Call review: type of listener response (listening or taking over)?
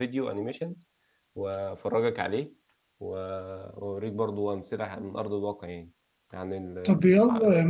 taking over